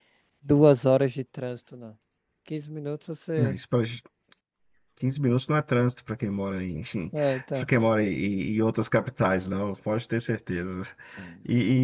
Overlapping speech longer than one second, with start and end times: none

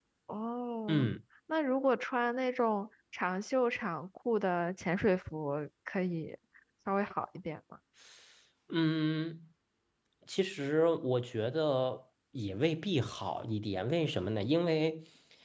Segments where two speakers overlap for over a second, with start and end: none

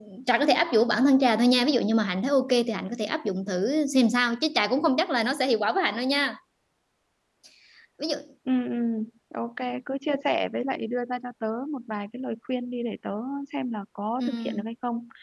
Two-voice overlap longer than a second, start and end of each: none

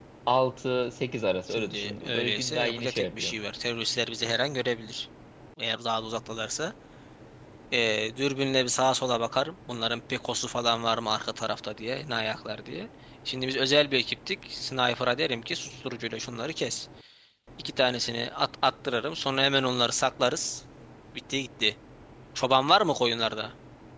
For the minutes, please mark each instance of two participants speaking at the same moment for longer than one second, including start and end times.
1.5-3.3

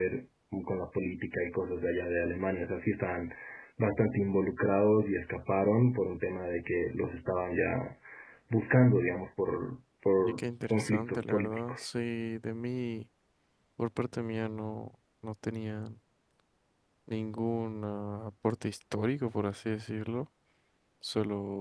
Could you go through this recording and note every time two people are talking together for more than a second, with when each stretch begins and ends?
10.2-11.9

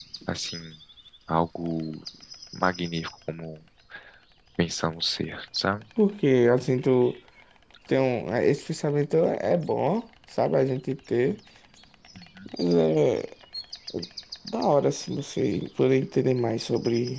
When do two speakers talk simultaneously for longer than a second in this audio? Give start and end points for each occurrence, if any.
none

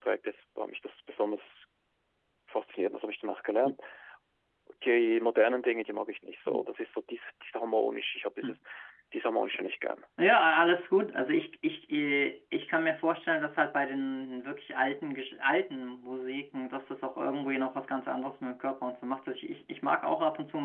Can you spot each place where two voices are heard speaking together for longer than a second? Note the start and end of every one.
none

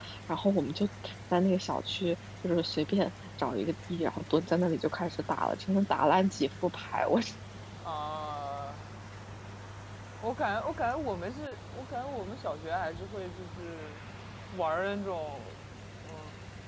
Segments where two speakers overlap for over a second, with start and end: none

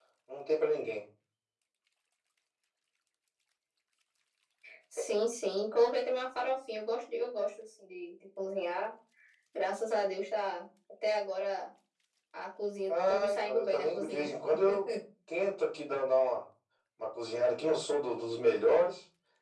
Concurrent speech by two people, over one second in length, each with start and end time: 12.9-14.3

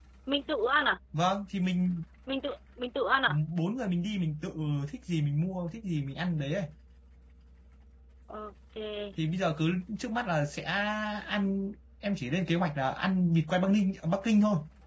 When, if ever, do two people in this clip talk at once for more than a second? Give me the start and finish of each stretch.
none

